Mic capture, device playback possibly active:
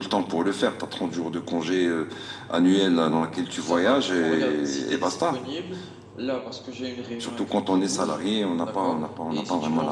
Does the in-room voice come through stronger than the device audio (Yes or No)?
No